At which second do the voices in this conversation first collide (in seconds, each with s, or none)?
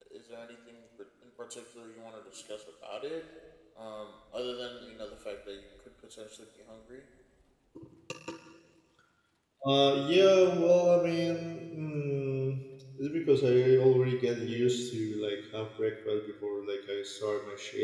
none